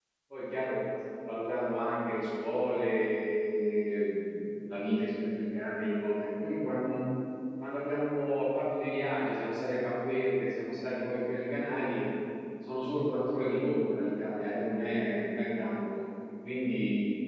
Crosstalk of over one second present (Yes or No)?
No